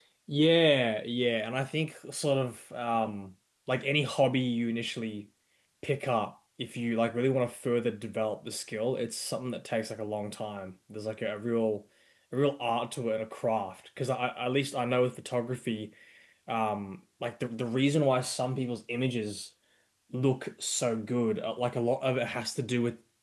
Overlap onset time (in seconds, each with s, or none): none